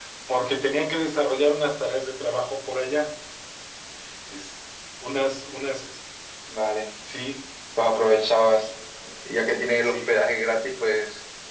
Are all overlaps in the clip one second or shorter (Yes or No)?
Yes